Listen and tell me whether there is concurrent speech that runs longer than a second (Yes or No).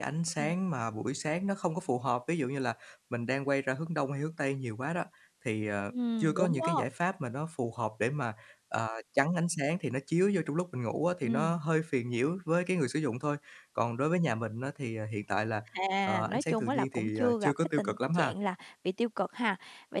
Yes